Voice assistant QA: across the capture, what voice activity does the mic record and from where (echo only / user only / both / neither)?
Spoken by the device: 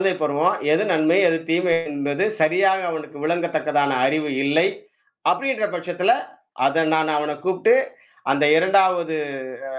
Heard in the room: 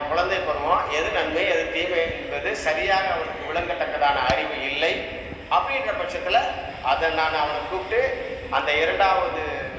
echo only